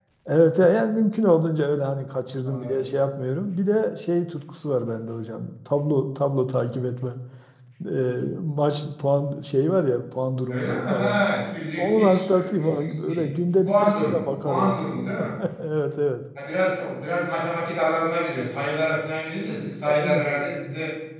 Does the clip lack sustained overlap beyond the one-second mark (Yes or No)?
No